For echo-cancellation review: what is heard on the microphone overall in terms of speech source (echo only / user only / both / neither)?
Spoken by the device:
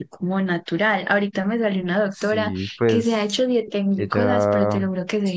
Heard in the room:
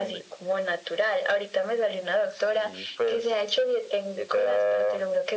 echo only